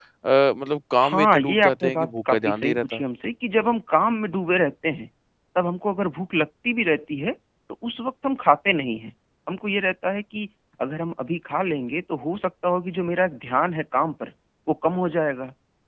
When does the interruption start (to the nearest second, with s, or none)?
1 s